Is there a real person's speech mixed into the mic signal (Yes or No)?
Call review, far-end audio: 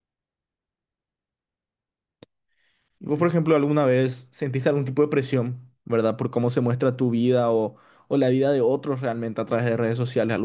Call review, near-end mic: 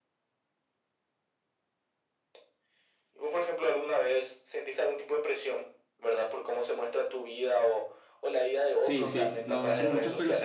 Yes